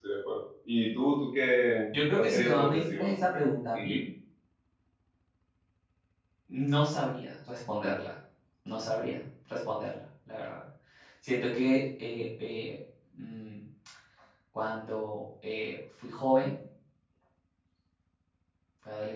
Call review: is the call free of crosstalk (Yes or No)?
No